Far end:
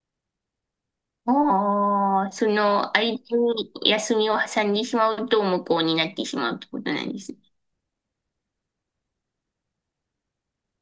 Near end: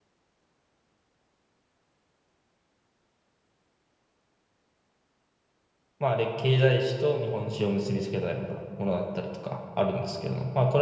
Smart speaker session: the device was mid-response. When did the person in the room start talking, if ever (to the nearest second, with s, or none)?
6 s